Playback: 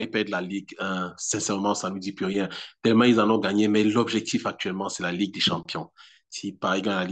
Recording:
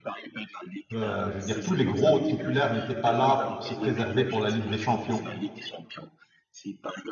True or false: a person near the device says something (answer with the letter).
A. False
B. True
B